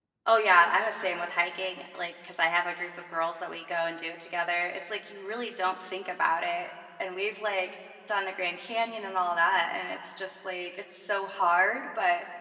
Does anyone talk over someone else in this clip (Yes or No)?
No